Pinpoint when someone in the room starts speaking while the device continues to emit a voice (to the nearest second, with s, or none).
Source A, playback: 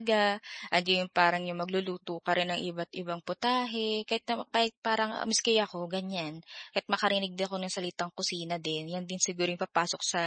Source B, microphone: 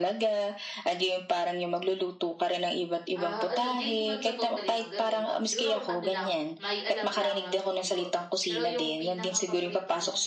3 s